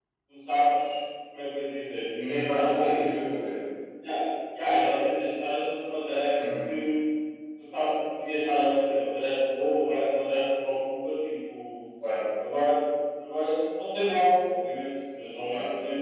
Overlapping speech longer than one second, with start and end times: none

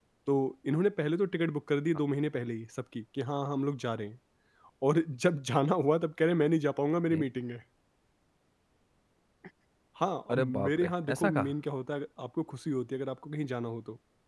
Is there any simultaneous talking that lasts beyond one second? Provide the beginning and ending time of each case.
10.3-11.5

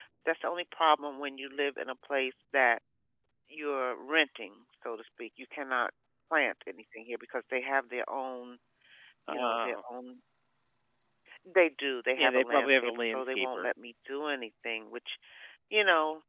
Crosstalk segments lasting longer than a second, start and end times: 12.2-13.7

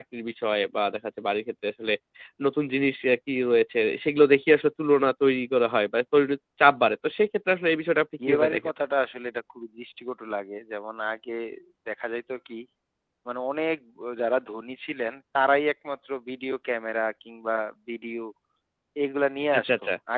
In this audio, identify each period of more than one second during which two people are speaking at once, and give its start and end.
none

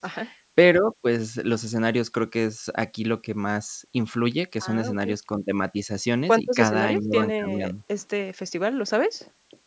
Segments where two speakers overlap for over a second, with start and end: 6.3-7.7

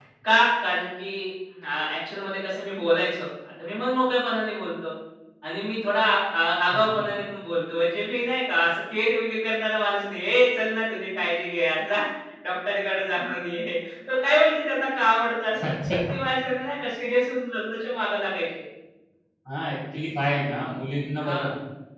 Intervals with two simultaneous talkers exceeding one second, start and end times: none

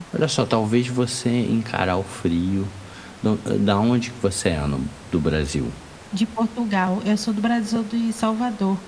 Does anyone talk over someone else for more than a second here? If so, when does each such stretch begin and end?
none

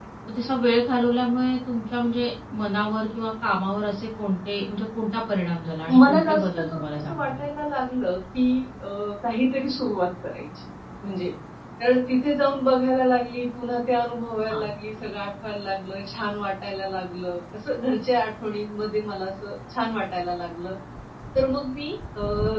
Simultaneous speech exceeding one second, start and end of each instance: 6.1-7.4

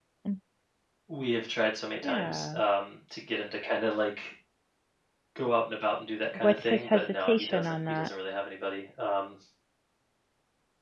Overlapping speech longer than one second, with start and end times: 6.3-8.1

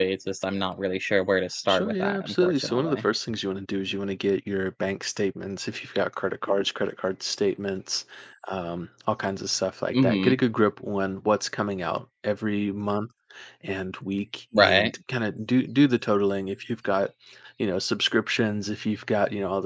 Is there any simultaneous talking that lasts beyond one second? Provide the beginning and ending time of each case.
1.7-3.0

